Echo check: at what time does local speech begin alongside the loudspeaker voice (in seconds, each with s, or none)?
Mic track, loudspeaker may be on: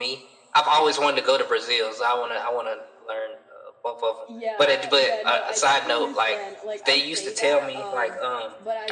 4.2 s